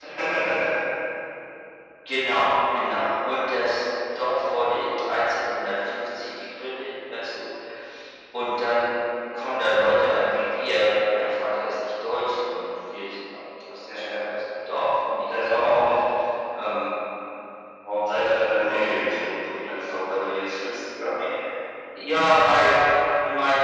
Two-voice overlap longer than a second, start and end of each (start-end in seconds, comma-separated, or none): 18.6-20.0